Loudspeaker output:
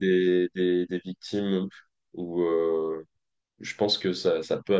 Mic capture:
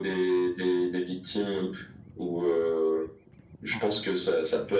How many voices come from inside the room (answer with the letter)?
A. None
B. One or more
B